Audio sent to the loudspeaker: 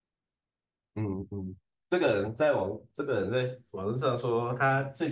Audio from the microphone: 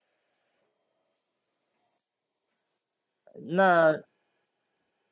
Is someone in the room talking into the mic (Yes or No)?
Yes